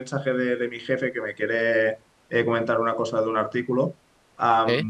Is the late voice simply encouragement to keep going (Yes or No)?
Yes